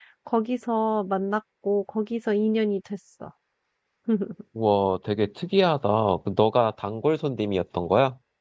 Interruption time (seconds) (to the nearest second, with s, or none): none